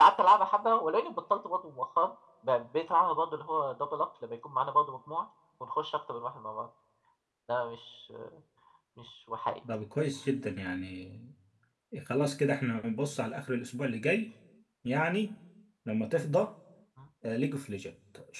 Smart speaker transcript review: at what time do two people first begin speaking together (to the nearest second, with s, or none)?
none